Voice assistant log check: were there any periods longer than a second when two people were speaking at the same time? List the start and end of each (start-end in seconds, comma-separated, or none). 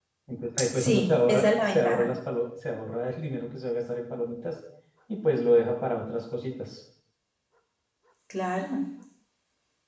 0.7-2.1